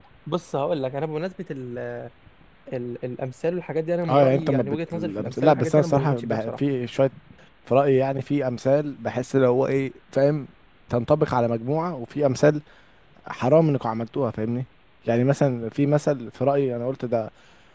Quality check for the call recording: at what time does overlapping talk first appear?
4.0 s

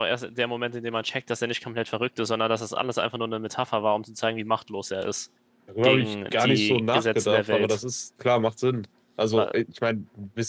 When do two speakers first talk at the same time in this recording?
5.8 s

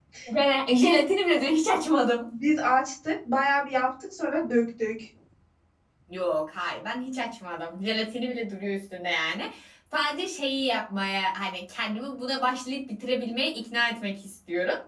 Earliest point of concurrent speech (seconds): none

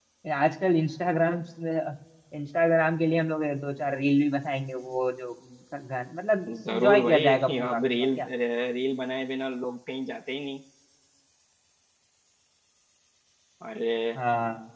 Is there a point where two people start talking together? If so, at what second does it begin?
6.5 s

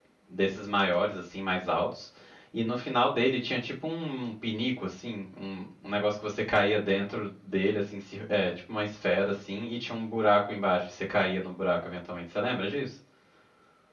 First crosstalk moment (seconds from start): none

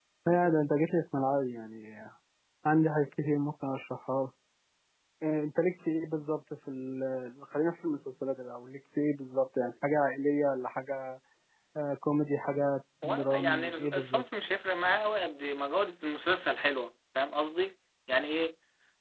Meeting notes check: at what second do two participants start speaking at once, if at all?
13.0 s

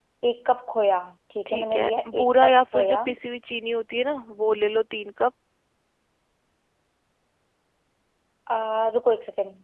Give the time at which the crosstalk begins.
1.5 s

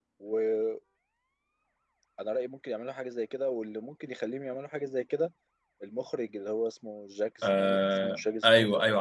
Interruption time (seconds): 7.4 s

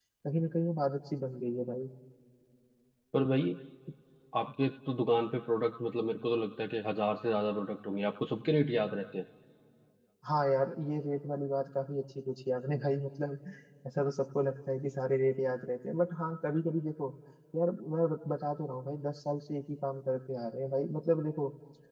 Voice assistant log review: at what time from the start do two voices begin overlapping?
none

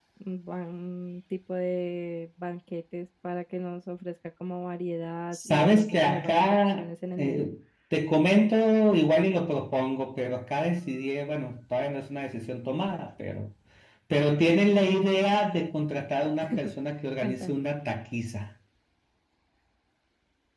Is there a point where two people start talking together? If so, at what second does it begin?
5.3 s

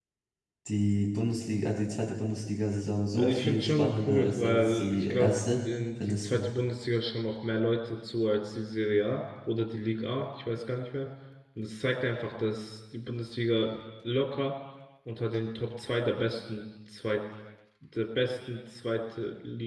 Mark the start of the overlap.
3.1 s

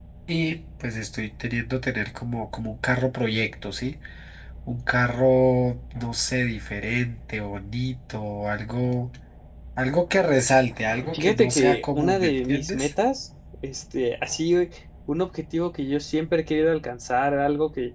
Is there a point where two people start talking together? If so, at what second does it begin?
11.1 s

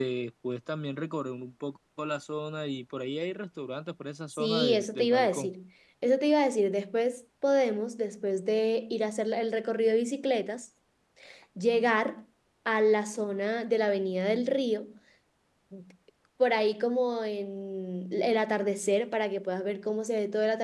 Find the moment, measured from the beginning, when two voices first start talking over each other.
4.3 s

